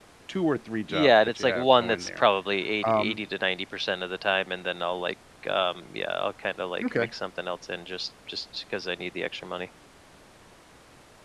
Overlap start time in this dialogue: 0.9 s

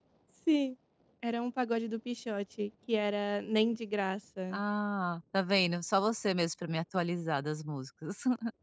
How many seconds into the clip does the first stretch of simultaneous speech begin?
none

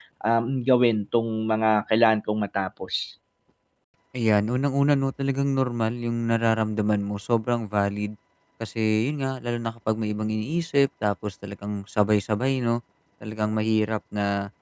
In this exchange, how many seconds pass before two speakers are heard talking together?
none

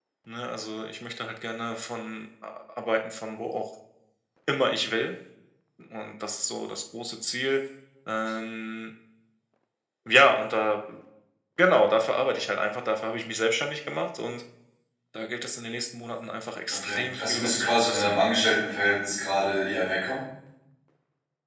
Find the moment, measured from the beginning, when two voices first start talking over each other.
16.7 s

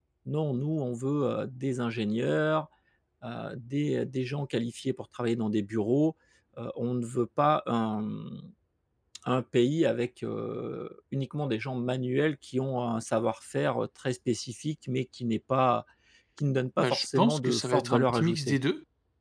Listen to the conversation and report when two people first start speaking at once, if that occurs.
16.8 s

